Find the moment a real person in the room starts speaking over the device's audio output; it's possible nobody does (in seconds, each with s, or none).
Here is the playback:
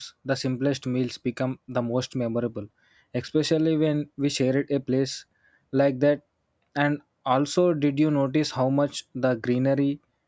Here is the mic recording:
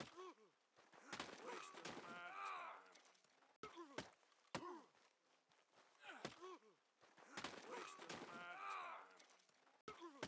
none